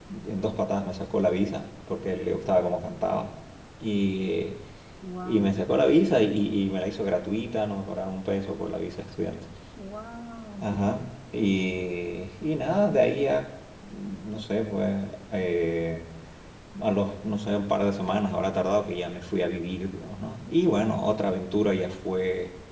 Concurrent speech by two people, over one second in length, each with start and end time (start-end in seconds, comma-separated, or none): none